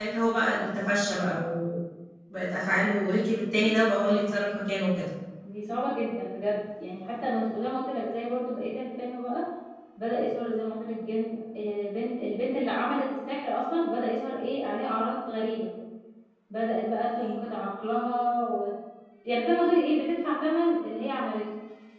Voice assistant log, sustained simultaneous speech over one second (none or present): none